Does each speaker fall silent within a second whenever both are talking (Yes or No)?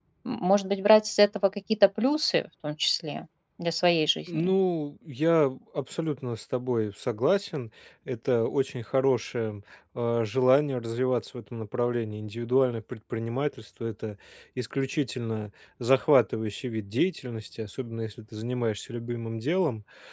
Yes